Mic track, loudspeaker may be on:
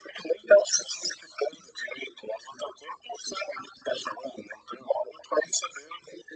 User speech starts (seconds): none

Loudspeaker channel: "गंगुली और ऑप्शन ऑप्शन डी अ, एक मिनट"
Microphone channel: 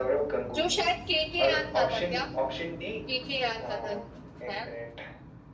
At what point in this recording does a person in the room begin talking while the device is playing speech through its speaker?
0.5 s

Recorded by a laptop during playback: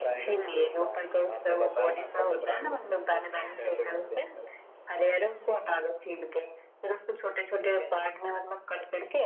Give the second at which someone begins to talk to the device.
7.6 s

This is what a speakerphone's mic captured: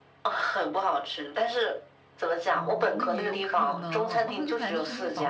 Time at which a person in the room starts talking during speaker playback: 2.5 s

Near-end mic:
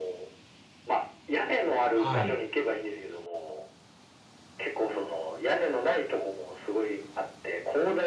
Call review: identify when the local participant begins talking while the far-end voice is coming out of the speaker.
1.9 s

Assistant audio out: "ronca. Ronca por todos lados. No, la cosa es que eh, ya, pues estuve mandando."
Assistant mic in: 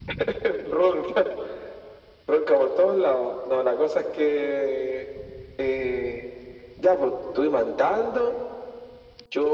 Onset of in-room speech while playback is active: none

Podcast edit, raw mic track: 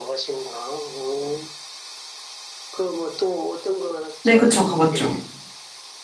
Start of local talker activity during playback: 4.2 s

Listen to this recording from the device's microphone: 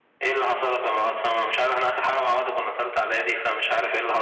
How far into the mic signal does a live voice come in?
none

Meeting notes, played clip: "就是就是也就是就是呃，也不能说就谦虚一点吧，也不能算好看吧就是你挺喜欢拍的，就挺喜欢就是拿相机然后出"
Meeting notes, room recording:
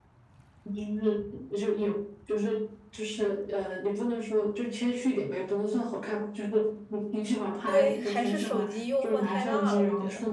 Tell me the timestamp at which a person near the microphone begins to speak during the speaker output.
7.7 s

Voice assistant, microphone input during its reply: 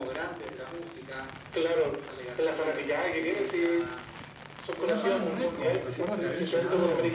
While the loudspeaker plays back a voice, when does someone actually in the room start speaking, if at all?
4.7 s

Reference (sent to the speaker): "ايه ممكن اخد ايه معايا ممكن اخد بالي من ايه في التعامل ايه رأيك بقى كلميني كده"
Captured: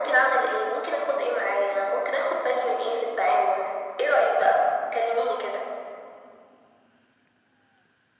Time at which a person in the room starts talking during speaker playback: none

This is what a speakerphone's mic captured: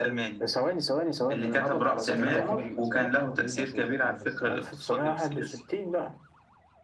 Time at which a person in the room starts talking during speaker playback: 2.2 s

